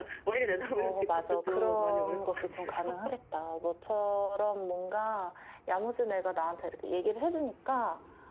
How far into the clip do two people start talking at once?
0.8 s

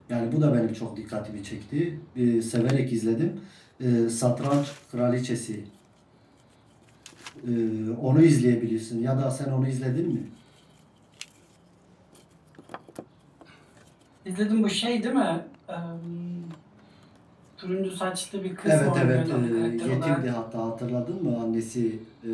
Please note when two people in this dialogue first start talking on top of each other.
18.6 s

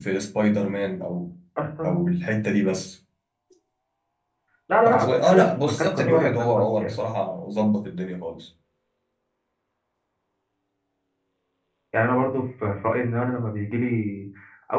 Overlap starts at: 4.8 s

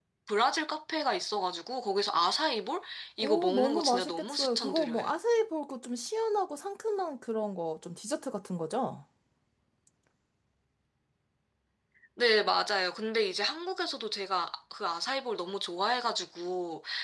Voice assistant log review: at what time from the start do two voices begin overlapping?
3.2 s

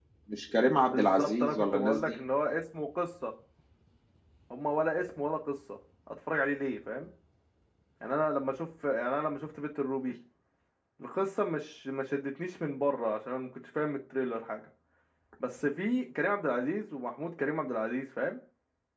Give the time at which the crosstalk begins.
0.8 s

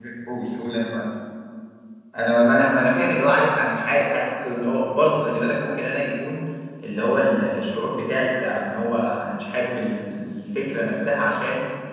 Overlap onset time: none

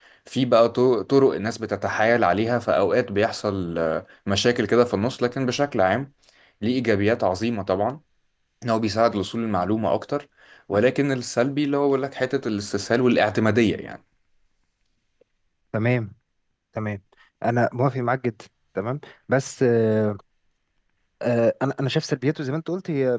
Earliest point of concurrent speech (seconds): none

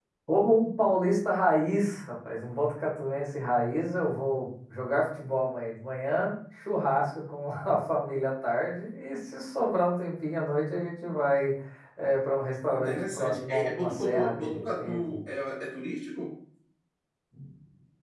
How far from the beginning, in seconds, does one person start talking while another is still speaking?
12.7 s

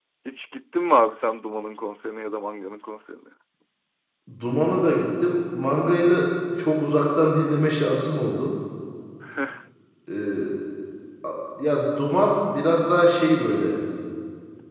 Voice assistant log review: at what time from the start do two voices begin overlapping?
none

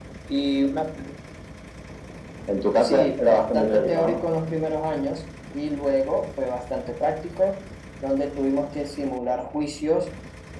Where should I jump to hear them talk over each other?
2.8 s

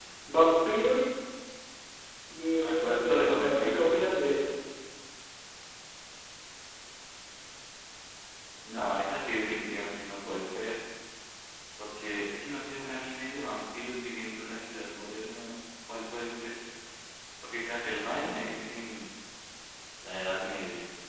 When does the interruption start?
2.6 s

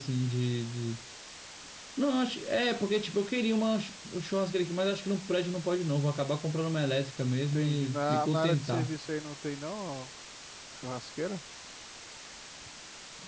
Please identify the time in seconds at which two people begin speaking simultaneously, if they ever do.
7.5 s

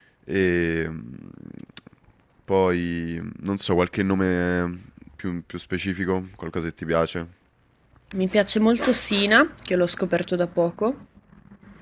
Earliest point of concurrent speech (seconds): none

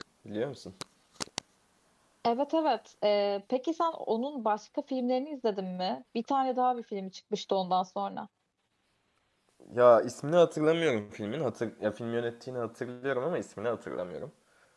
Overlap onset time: none

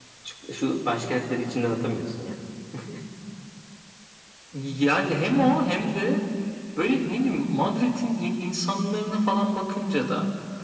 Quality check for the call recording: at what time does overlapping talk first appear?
none

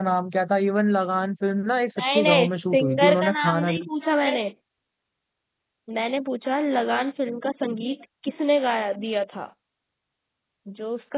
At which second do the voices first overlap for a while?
2.0 s

